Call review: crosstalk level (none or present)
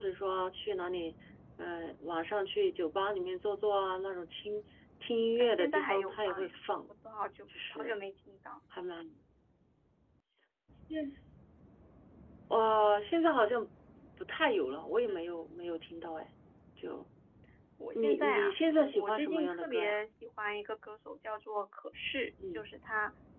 present